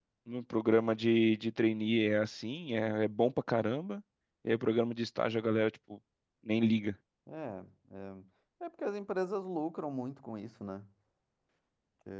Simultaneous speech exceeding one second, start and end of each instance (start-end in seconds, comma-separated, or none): none